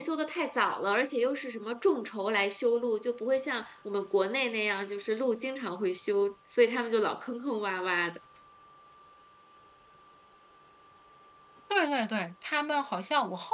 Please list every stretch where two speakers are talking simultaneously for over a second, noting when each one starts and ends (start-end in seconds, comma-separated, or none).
none